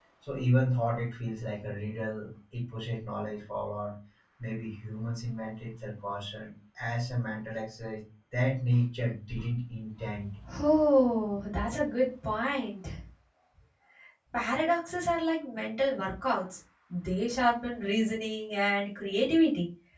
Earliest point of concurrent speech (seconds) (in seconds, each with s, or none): none